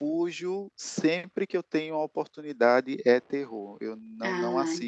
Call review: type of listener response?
listening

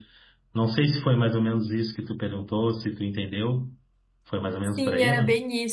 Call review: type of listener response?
taking over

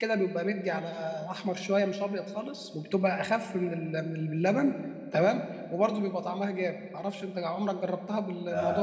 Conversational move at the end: taking over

